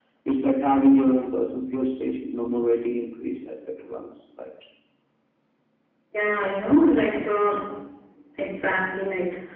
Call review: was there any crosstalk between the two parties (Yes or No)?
No